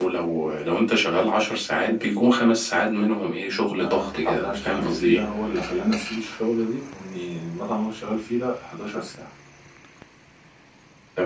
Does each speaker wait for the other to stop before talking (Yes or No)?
No